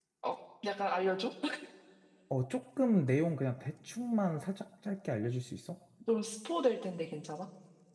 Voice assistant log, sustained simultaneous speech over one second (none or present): none